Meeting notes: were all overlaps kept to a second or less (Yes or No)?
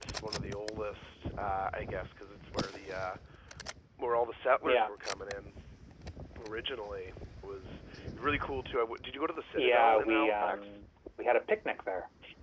No